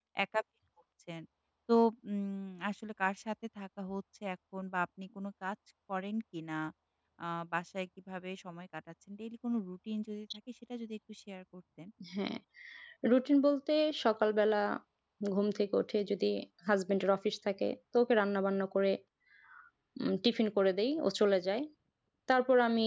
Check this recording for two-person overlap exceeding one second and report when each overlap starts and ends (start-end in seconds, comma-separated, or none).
none